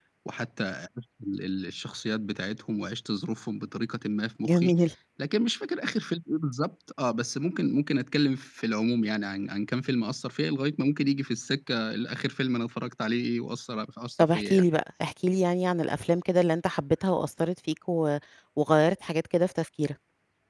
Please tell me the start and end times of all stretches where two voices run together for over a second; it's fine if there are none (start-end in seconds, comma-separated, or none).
none